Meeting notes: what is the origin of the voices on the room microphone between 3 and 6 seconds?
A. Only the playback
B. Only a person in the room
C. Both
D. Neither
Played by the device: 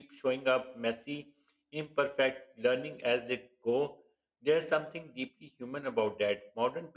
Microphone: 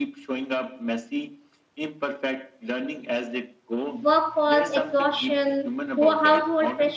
C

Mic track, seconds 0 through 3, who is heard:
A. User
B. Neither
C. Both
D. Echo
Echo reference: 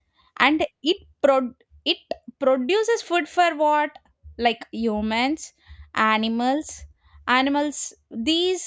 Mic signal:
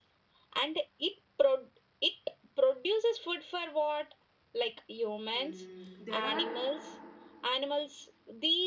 D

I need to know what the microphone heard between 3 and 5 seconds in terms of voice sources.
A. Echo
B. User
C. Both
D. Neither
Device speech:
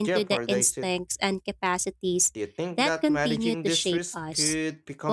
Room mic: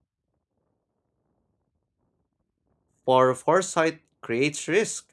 B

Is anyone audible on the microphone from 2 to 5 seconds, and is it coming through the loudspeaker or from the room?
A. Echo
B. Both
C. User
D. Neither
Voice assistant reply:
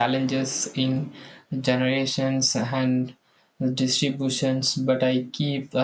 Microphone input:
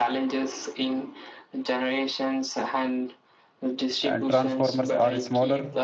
B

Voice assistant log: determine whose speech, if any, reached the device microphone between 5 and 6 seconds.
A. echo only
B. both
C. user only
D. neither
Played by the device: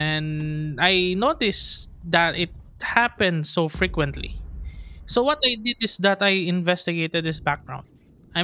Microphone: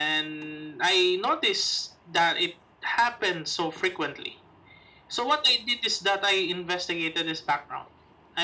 A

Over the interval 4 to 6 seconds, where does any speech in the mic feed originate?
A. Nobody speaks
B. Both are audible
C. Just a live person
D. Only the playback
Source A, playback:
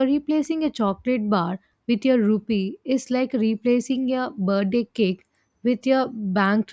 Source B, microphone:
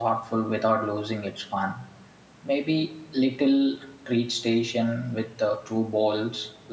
C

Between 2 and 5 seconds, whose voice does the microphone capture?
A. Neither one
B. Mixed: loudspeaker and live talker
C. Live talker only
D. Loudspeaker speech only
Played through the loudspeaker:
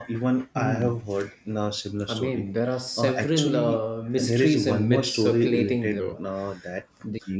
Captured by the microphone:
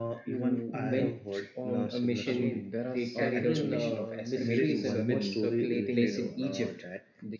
B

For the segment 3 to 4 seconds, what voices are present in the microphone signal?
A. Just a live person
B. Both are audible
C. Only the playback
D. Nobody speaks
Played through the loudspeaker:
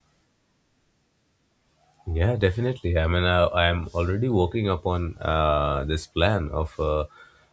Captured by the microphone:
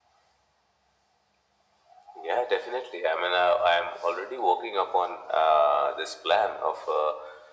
C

